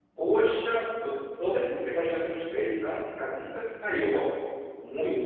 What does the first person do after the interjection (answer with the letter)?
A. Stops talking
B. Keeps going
B